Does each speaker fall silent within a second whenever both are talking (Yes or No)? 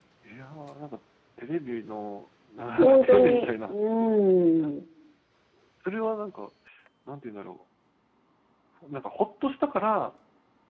No